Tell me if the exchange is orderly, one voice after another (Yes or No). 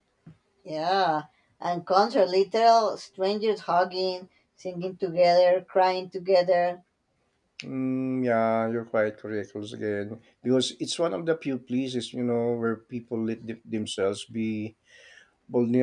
Yes